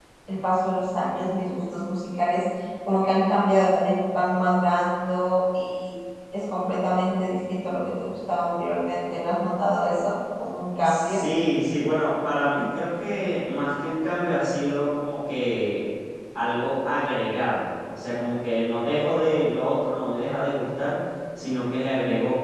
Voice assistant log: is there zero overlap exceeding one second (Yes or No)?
Yes